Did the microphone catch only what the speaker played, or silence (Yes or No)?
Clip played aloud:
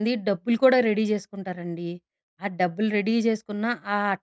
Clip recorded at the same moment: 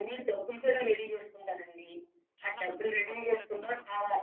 No